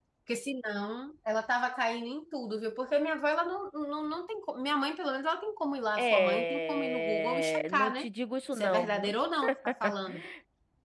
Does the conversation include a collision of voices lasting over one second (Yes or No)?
Yes